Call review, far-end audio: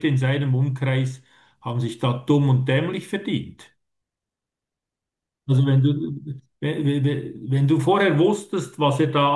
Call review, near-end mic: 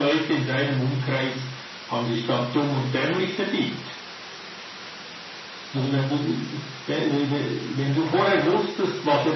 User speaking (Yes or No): No